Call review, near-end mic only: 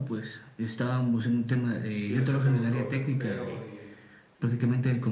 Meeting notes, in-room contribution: present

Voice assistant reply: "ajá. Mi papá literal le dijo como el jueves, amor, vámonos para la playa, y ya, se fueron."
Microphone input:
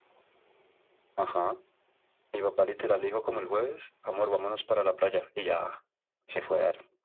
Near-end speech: none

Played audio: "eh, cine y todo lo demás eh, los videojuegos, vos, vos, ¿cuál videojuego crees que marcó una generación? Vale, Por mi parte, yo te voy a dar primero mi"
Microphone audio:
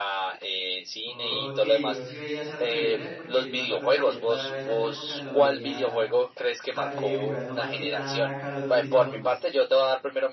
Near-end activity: present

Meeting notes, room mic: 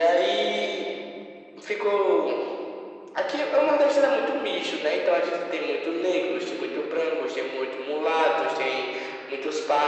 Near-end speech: none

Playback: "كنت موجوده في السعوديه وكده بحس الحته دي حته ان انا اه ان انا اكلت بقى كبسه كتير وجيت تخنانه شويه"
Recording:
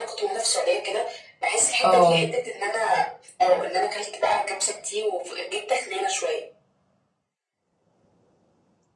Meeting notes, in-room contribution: present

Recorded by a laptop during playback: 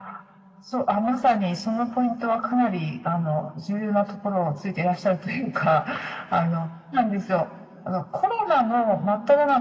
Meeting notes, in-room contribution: none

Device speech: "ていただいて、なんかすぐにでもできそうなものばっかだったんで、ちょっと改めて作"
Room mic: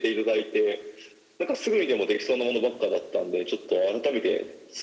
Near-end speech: none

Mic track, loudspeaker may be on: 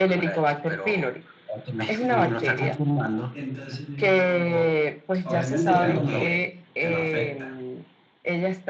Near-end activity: present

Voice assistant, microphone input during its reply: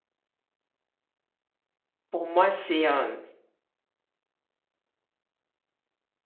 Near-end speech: present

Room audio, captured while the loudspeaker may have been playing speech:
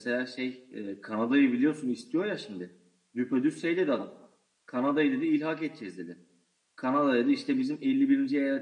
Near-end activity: none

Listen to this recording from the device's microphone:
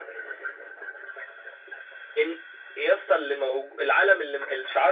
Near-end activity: none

